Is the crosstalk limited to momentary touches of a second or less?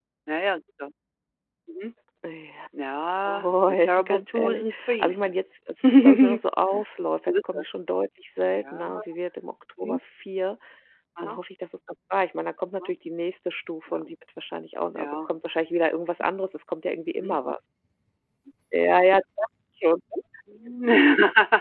No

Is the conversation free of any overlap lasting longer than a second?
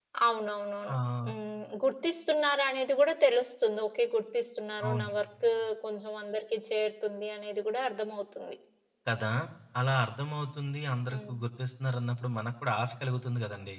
Yes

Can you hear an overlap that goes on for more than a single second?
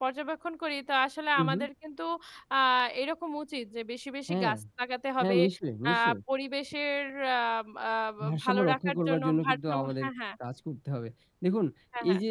Yes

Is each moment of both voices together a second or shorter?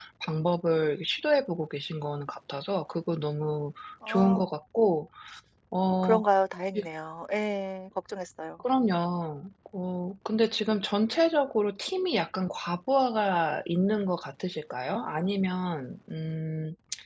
Yes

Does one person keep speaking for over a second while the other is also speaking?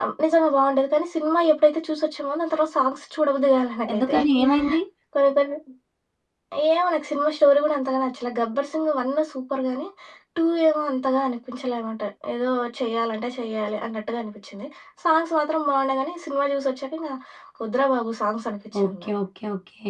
No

